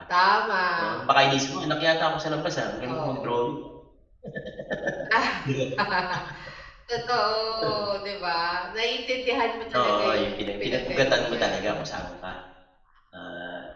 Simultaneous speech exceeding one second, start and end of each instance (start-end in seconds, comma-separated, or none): 9.8-11.8